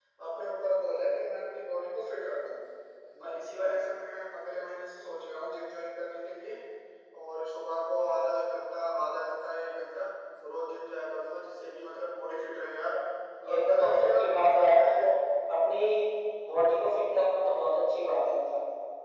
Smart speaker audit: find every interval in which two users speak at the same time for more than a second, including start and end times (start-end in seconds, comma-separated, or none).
13.4-15.1